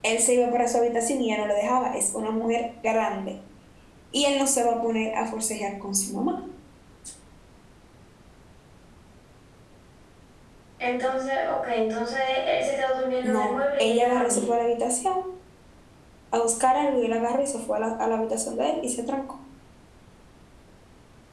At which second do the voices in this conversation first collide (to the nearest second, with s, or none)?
13 s